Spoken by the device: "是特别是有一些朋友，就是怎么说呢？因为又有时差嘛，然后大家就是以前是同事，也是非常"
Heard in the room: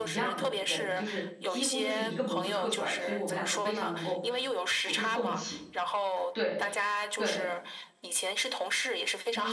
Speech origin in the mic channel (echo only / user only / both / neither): both